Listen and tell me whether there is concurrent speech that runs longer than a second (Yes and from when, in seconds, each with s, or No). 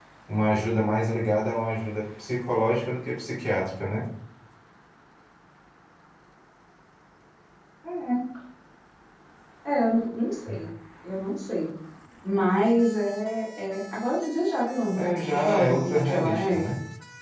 Yes, from 15.0 s